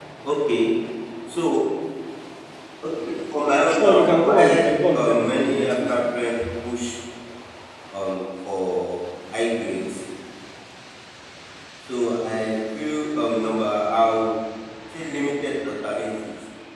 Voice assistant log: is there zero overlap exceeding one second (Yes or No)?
No